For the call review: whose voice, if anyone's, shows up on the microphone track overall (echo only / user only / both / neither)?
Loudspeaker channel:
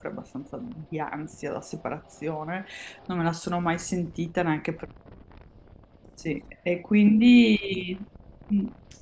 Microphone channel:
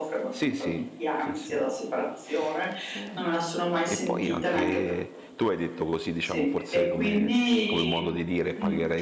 both